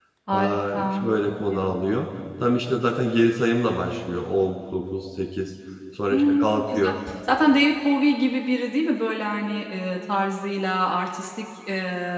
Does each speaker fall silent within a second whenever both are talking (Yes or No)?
No